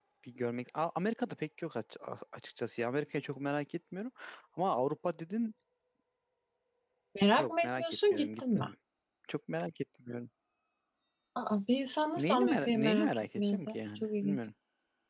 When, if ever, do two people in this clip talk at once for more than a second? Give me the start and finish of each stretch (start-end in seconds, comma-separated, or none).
7.4-8.7, 12.2-14.4